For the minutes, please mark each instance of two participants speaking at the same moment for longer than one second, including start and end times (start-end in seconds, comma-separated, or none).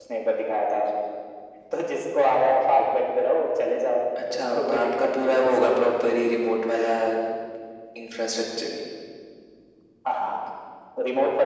4.3-5.7